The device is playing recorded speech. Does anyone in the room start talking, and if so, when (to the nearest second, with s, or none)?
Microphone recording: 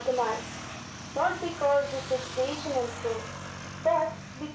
none